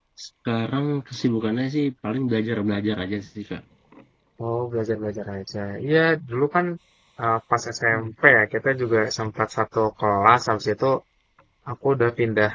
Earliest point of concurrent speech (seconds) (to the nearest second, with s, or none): none